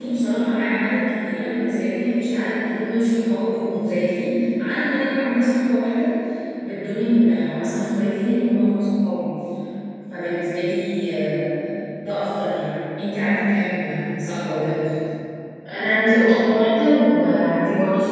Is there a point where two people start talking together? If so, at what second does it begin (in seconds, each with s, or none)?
none